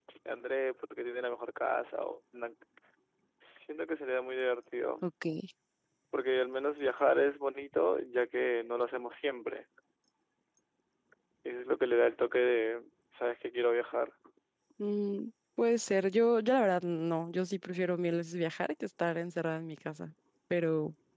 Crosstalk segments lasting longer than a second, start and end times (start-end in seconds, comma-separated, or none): none